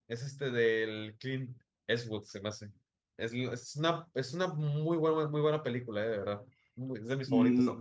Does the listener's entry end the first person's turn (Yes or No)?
Yes